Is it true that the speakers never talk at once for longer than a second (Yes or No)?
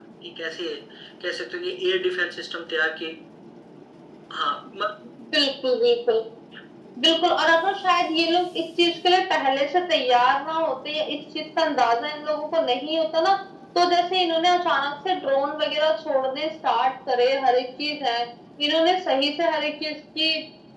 Yes